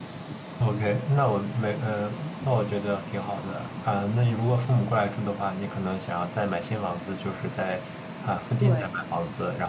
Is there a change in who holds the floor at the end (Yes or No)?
No